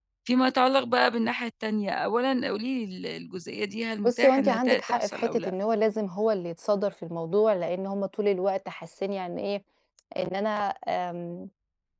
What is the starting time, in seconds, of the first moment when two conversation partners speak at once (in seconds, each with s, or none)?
4.0 s